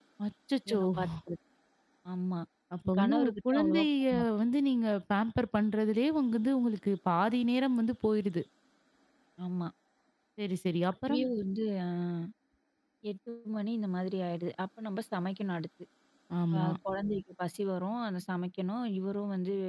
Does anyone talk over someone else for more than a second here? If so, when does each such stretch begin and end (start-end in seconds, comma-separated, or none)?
3.0-4.3